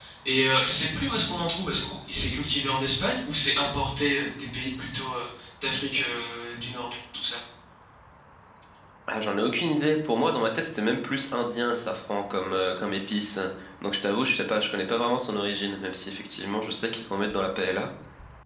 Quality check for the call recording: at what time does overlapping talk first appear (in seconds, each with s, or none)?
none